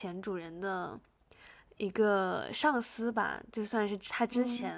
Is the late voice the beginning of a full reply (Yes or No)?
No